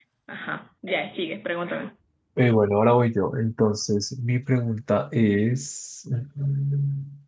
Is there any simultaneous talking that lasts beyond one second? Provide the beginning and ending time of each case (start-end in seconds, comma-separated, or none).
none